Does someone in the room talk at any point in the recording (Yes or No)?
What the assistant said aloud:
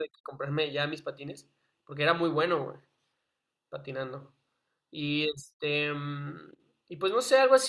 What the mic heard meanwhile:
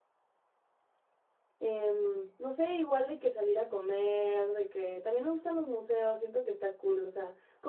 Yes